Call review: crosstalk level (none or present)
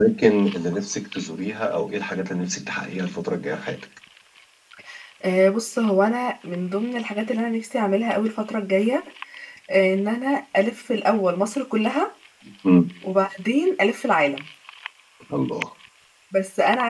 none